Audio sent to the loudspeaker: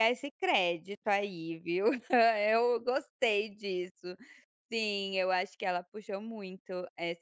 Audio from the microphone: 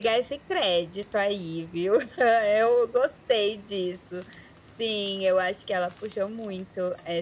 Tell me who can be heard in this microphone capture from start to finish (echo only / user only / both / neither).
echo only